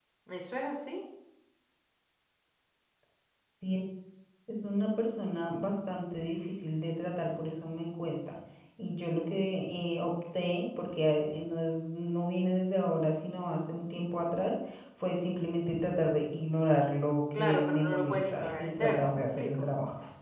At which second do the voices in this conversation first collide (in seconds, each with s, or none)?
17.3 s